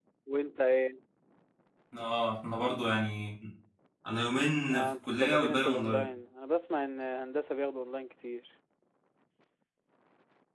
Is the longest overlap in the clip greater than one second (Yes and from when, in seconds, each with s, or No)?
Yes, from 4.7 s